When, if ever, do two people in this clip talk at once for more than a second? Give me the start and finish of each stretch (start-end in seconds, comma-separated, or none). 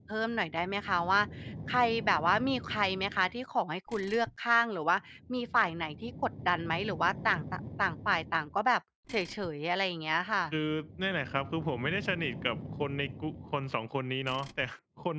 none